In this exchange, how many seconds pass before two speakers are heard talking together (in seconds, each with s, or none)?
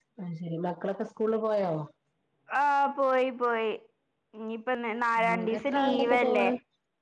5.2 s